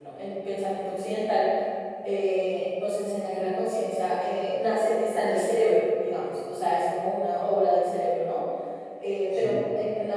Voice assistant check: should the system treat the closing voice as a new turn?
No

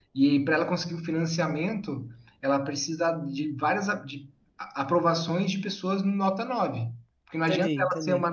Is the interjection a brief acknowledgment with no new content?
Yes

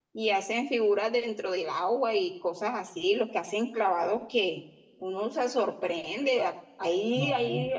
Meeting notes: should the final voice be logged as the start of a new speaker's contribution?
No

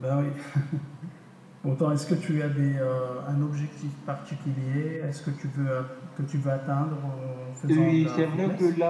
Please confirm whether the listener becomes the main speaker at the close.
Yes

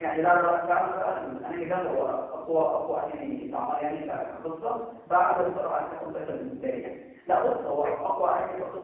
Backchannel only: Yes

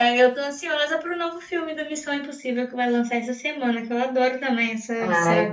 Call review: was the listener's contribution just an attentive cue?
No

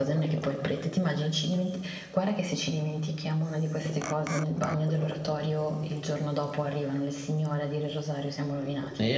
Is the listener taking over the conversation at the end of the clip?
Yes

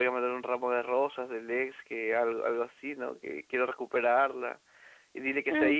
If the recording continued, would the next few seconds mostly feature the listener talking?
Yes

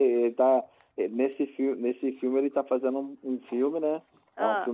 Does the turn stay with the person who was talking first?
Yes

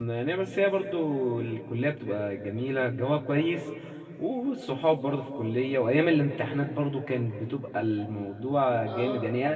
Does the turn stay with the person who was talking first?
Yes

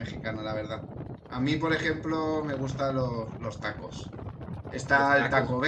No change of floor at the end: Yes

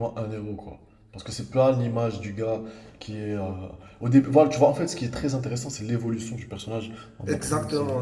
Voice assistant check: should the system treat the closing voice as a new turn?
Yes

